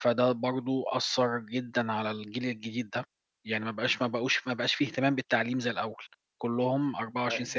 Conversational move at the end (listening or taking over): listening